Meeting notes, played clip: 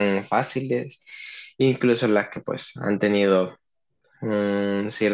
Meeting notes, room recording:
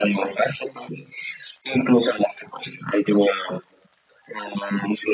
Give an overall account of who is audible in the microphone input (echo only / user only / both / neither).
echo only